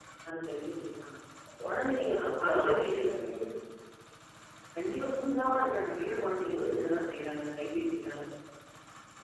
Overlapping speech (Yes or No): Yes